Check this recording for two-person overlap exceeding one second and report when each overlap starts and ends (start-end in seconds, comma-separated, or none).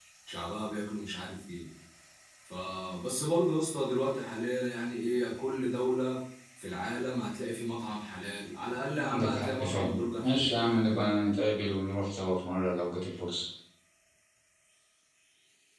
9.1-10.5